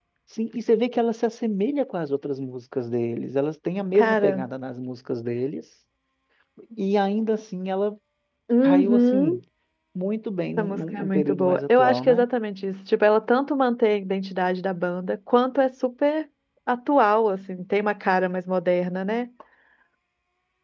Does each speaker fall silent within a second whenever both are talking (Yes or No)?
No